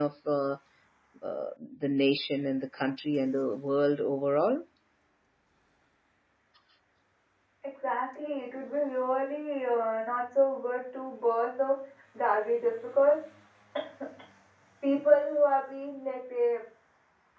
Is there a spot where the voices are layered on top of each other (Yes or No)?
No